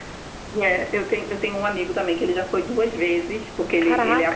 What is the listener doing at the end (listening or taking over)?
listening